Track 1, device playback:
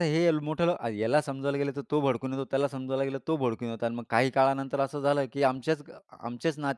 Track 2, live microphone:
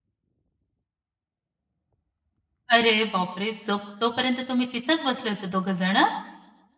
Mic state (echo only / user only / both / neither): user only